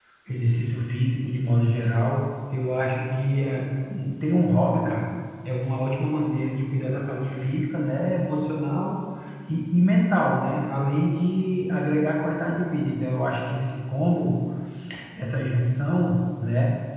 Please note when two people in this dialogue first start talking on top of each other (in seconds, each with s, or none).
none